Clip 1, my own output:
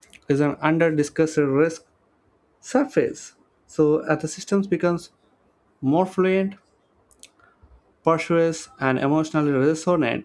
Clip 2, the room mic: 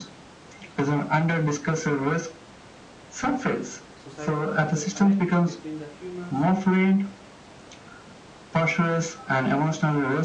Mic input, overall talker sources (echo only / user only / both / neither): both